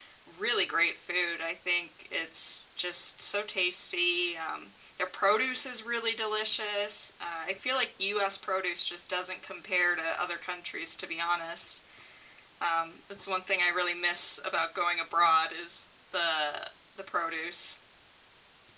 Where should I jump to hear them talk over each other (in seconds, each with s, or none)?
none